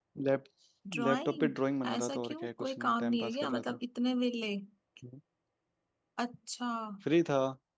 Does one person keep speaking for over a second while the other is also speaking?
Yes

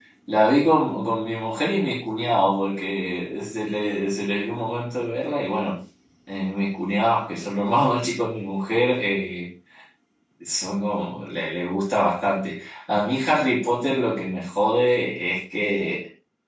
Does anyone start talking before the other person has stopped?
No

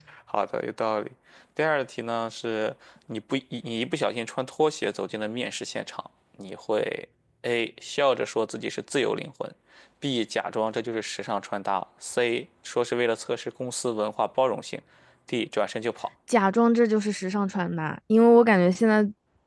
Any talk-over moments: No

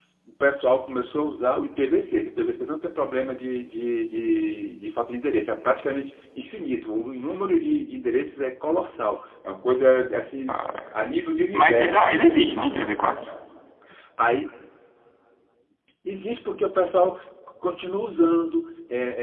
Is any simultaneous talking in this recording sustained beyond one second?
Yes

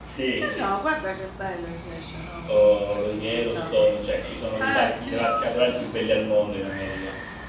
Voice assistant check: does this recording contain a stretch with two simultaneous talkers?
Yes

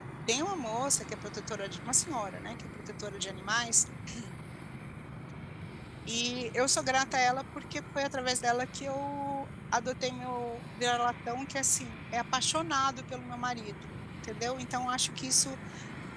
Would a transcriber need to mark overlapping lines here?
No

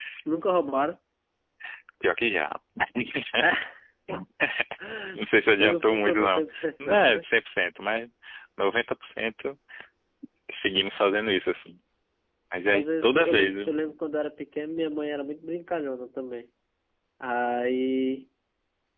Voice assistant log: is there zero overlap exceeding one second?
No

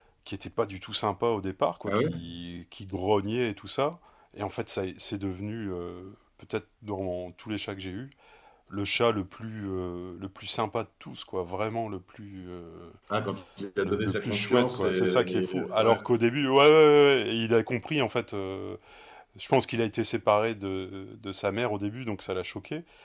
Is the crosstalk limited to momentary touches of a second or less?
No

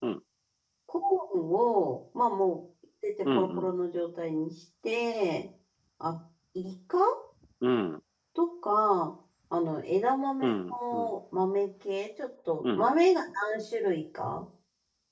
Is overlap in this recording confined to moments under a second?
Yes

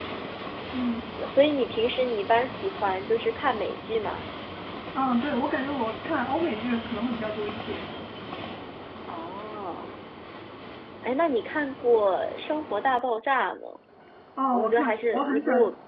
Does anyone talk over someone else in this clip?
Yes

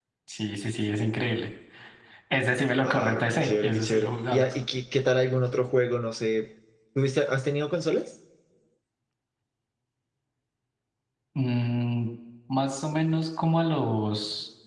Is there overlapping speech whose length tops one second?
Yes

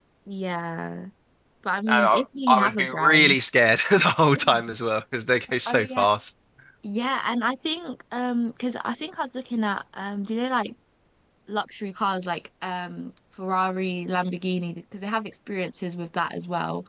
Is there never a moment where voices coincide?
No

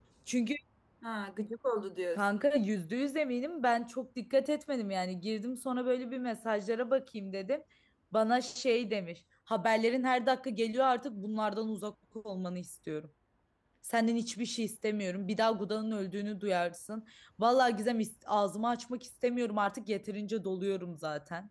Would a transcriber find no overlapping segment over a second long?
Yes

